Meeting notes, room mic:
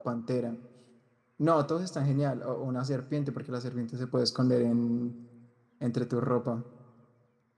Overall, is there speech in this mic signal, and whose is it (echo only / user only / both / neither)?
user only